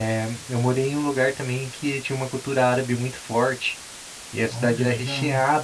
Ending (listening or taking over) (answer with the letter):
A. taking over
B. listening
B